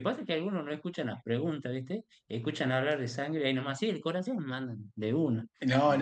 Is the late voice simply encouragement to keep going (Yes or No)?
No